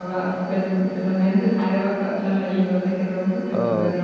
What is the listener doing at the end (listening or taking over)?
taking over